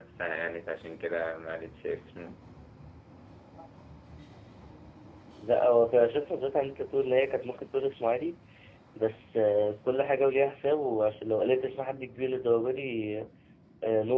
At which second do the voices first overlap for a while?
none

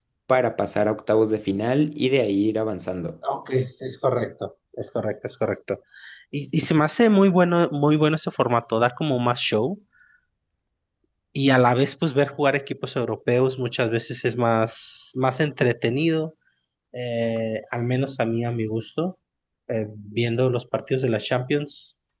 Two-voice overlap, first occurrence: none

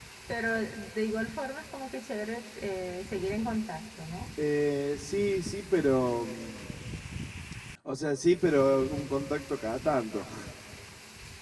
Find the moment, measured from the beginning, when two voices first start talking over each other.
none

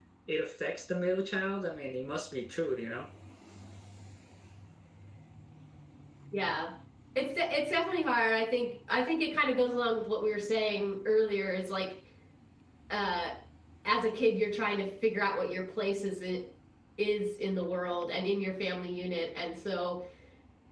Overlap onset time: none

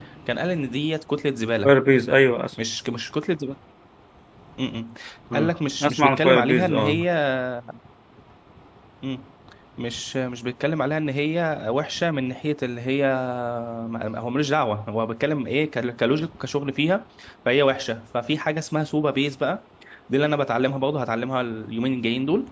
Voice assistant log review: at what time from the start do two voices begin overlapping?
5.3 s

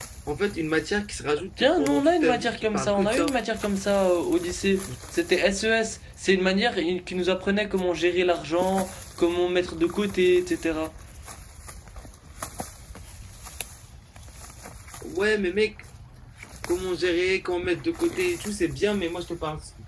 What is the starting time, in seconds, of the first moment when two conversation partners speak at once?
1.6 s

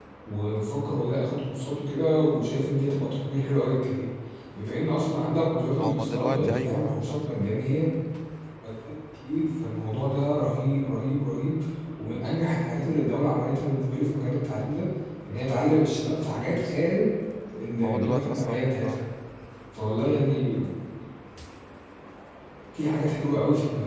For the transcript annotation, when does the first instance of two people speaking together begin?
5.8 s

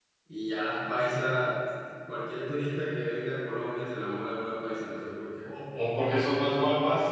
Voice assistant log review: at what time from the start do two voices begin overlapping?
none

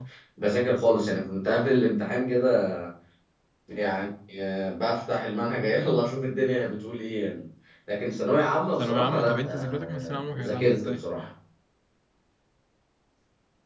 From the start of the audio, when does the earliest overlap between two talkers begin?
8.8 s

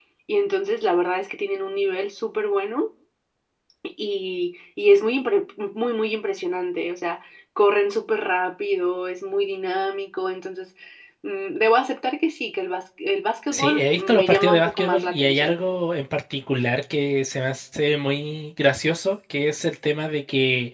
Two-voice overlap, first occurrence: 13.5 s

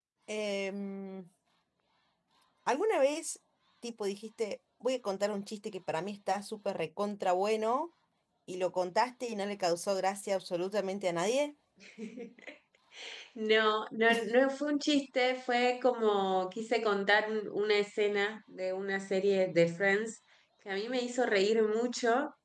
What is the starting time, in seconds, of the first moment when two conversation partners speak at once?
none

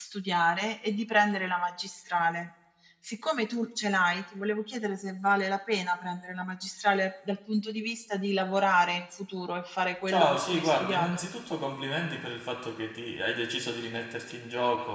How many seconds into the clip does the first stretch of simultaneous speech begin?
10.1 s

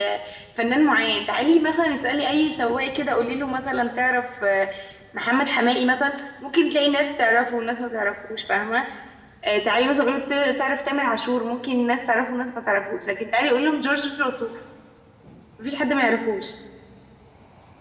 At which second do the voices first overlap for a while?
none

